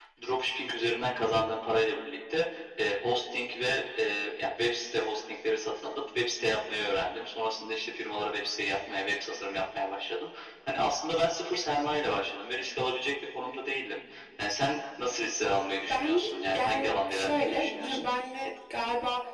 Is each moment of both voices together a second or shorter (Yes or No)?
No